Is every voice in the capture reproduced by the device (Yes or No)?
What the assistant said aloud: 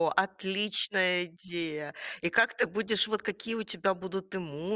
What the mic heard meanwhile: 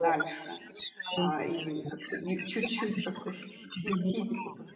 No